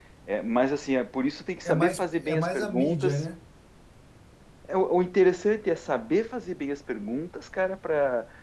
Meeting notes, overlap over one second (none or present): present